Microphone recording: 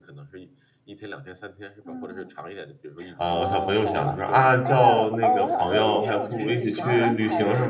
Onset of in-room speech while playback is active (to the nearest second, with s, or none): 3 s